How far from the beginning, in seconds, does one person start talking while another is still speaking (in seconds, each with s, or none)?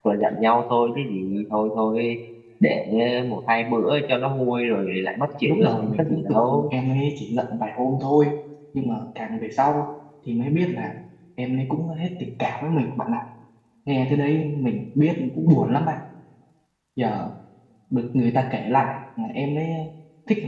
5.4 s